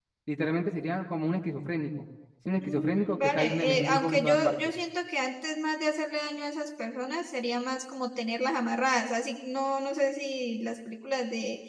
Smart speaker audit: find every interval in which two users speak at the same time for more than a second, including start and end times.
2.6-4.5

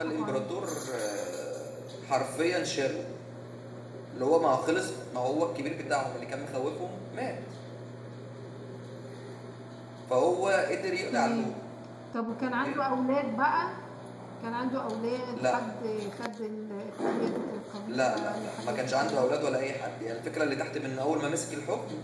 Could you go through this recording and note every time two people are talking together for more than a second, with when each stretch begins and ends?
17.9-19.4

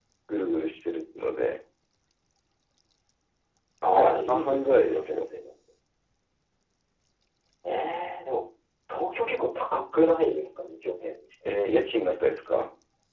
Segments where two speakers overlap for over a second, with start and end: 3.9-5.3

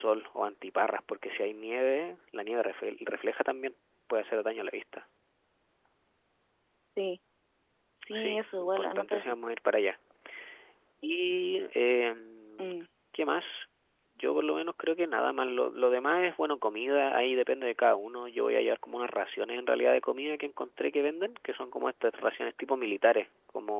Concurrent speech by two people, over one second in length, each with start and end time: 8.1-9.4

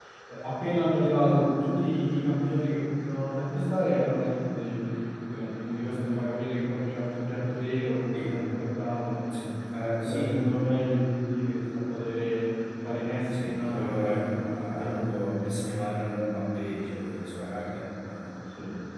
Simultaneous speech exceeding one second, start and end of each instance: 13.3-15.1

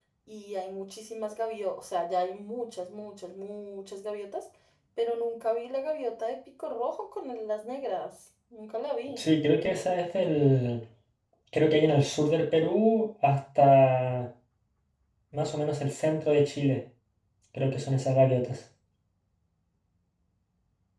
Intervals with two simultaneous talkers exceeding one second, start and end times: none

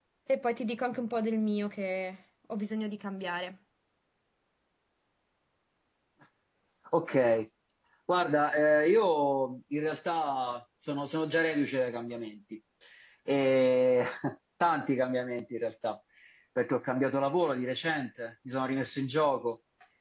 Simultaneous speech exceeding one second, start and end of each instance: none

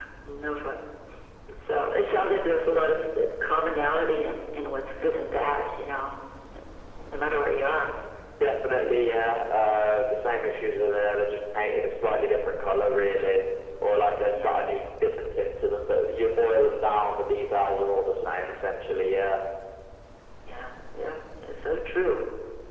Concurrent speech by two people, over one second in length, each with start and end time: none

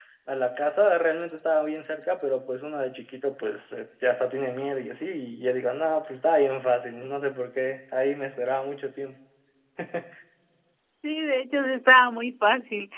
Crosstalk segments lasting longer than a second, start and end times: none

